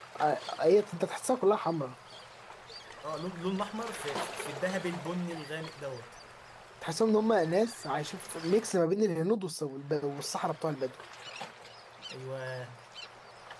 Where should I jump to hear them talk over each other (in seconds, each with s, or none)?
none